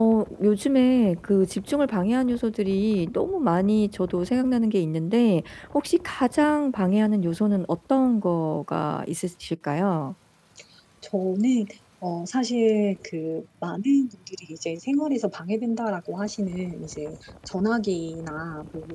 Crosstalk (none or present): none